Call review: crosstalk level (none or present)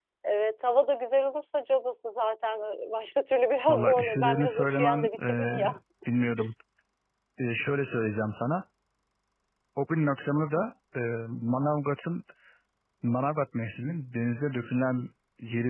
present